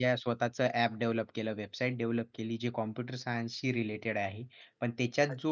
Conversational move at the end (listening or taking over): listening